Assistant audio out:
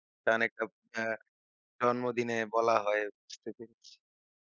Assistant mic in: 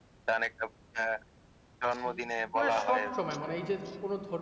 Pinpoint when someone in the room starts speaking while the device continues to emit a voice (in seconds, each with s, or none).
2.0 s